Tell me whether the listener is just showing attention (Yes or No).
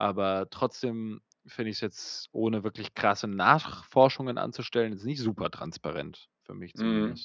No